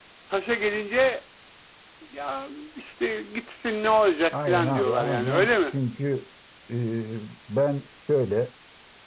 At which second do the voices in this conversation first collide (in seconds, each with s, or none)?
4.3 s